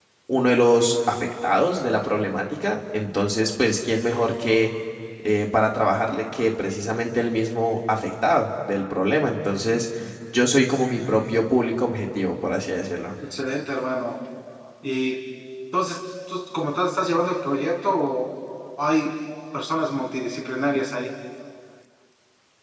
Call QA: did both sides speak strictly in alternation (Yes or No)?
Yes